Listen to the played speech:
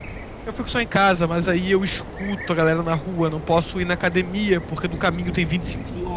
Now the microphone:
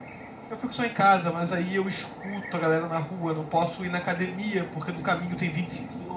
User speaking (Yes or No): No